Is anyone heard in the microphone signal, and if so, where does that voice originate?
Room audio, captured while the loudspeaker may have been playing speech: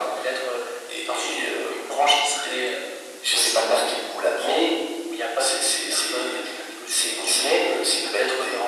echo only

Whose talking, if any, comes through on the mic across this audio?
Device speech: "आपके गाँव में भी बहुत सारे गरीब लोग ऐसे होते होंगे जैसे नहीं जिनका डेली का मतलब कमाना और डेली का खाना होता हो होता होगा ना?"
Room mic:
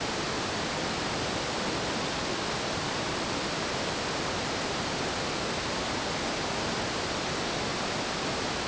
neither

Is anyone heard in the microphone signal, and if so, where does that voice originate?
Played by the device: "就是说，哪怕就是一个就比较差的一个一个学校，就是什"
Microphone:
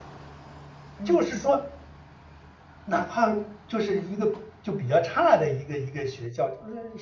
both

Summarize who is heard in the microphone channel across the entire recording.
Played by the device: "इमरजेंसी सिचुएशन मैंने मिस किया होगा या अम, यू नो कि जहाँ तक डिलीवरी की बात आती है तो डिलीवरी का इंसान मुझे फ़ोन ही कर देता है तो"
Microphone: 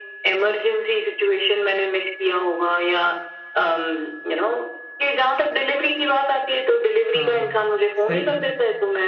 both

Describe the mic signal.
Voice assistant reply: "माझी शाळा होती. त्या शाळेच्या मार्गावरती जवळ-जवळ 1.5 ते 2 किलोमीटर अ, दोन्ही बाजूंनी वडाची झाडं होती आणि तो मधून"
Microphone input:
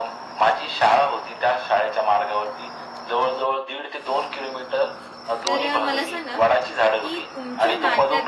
both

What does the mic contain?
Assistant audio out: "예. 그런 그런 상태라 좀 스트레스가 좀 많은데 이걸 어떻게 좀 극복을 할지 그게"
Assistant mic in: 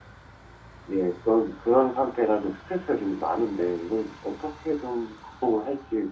echo only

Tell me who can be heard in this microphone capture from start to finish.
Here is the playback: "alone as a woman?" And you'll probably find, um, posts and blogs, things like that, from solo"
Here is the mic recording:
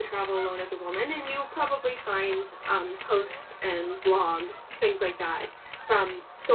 echo only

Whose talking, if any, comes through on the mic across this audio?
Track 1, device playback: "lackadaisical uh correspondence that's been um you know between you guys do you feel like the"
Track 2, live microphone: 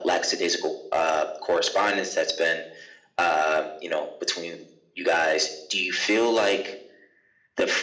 echo only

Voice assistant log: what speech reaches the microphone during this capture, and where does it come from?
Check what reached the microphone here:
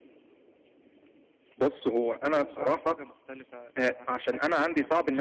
both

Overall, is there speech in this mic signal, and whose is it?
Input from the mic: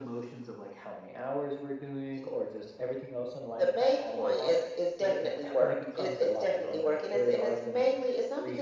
echo only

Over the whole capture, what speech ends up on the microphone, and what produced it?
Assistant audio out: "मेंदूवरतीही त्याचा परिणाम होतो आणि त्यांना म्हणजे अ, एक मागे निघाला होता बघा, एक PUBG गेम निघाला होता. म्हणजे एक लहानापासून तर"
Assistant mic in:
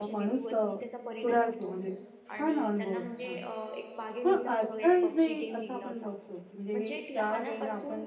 both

